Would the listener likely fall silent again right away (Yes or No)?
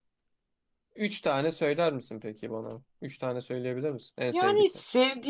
No